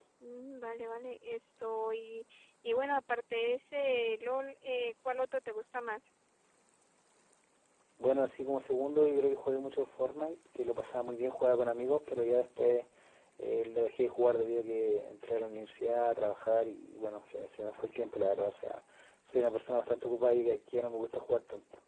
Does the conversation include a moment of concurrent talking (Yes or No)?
No